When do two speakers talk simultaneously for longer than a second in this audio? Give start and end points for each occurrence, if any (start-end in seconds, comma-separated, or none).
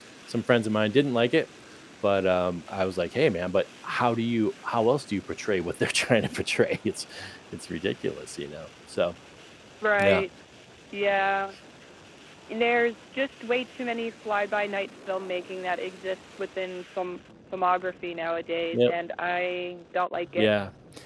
none